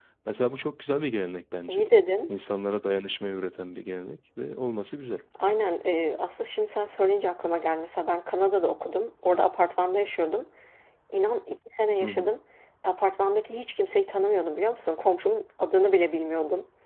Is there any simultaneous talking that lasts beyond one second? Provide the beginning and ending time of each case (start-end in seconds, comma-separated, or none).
none